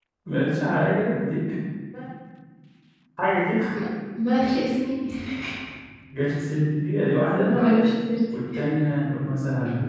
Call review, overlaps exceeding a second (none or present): none